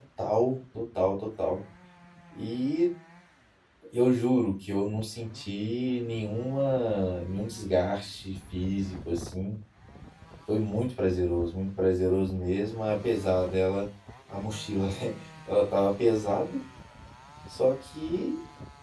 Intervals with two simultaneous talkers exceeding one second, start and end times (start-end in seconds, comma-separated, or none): none